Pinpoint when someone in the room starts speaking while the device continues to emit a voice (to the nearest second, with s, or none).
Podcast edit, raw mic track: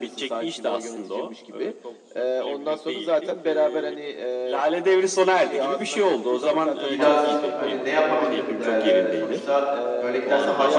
7 s